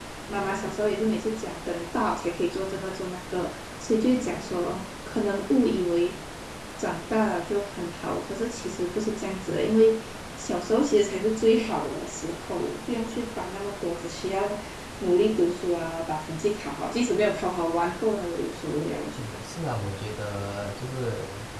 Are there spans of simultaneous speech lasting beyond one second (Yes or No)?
No